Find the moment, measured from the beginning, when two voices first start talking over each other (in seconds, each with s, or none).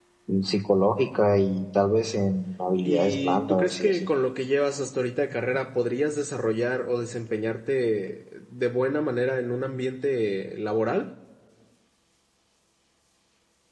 2.9 s